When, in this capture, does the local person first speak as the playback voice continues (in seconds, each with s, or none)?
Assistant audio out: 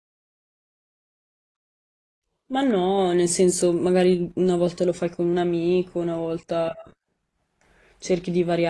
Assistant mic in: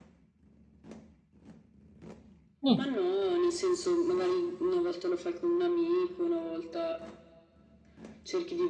2.6 s